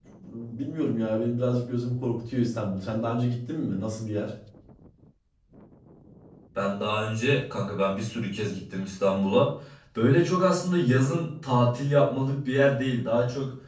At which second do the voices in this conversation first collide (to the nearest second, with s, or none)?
none